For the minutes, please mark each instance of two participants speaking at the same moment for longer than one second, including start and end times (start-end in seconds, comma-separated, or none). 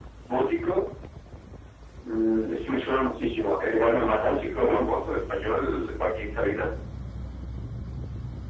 3.7-4.9